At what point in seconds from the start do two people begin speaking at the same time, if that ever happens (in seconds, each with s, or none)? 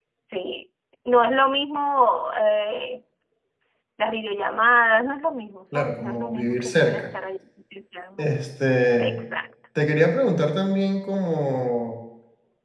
5.7 s